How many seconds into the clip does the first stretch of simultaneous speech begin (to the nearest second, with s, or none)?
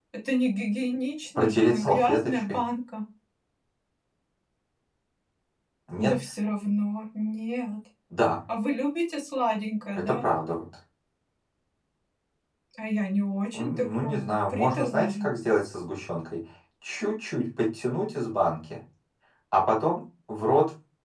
1 s